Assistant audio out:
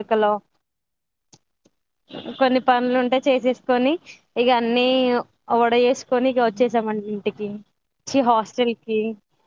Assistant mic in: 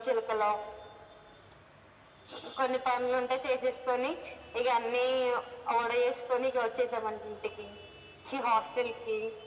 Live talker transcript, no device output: none

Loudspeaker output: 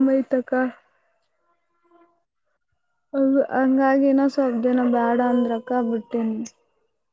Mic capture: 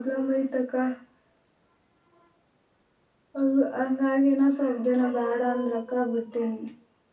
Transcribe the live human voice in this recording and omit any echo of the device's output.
none

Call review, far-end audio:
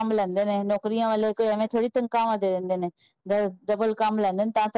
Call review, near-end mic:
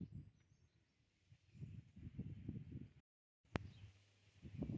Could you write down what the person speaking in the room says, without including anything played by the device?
none

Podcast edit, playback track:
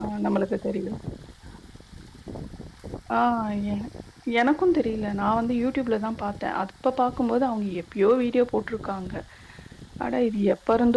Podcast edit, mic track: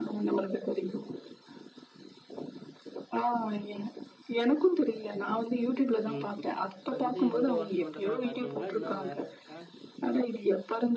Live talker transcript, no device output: ம் ம் இப்ப இந்த இந்த ஒர்க் மட்டு தா பாக்கீங்ளா இன்னு வேற இருக்கா

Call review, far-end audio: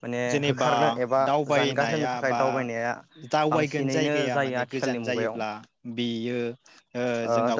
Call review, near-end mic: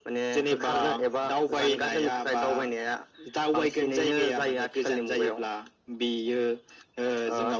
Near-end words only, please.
none

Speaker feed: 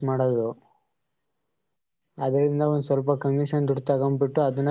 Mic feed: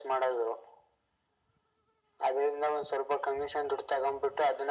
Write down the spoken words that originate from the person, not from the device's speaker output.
none

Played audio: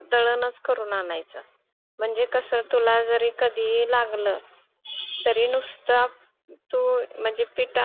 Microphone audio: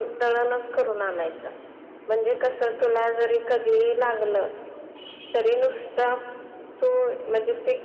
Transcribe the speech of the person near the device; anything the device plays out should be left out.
none

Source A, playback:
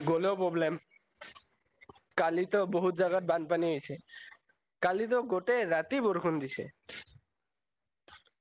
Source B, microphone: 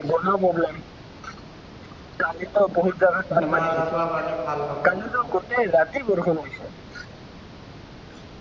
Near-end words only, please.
বেমাৰ আজাৰৰ পৰা মানে ভাল হ'ব

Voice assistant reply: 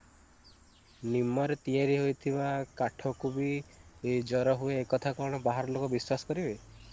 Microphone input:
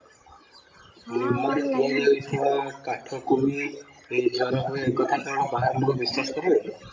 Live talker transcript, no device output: ହଁ ଆମଆଡ଼େ ଲାଇନ୍ ଅଛି।

